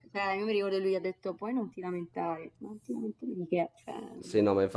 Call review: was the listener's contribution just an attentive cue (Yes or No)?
No